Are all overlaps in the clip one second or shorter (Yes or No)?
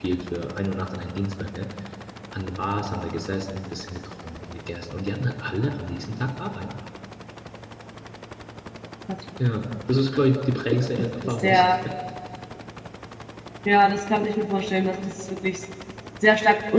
Yes